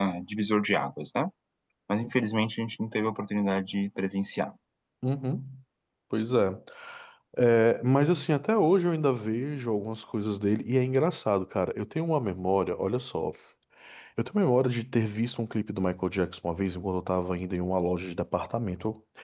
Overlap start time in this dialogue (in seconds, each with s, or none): none